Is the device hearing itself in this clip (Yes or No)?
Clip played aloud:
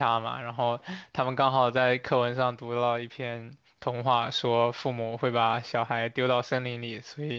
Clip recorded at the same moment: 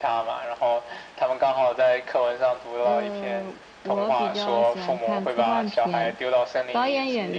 Yes